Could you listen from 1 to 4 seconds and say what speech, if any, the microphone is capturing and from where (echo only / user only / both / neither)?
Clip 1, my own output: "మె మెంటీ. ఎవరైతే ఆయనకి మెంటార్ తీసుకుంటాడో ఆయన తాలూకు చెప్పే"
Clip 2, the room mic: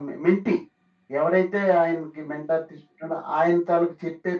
echo only